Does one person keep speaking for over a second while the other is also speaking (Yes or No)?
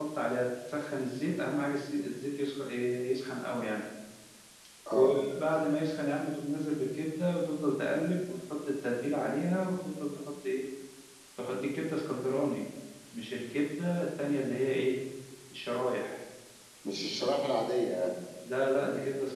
No